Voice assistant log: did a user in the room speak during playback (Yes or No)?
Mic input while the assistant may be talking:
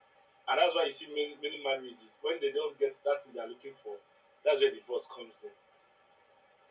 No